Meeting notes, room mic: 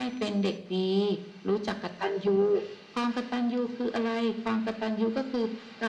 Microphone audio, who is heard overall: echo only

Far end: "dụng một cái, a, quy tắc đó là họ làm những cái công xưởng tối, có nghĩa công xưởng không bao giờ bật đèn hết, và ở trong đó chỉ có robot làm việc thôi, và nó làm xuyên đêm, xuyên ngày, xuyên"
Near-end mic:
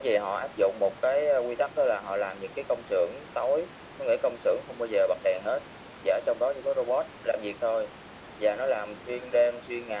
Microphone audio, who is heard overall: echo only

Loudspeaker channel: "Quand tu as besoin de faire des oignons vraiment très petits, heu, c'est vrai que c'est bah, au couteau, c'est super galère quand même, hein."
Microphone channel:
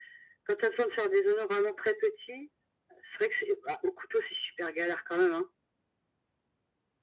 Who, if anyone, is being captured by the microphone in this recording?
echo only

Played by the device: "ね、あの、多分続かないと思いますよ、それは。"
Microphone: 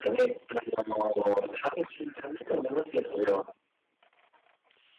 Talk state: echo only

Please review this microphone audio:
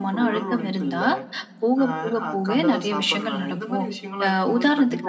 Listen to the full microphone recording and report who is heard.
echo only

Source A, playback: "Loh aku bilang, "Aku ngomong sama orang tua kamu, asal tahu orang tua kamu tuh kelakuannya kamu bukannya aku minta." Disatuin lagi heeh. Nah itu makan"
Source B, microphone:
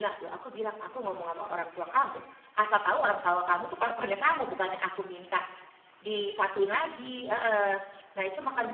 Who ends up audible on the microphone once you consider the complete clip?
echo only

